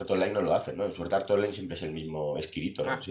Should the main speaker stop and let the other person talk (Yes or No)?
Yes